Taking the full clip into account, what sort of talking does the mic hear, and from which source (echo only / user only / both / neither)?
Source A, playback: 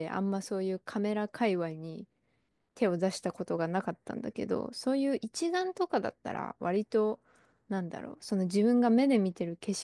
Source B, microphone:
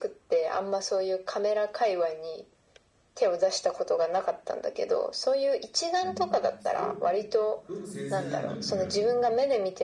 both